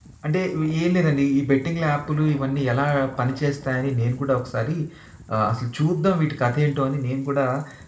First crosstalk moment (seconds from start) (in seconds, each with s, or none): none